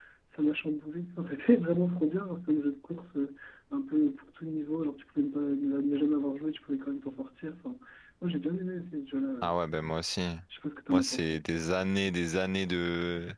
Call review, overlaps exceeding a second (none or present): none